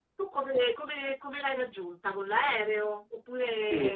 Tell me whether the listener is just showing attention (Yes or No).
No